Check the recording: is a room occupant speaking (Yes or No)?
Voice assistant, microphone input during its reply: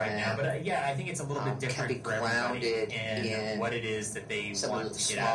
No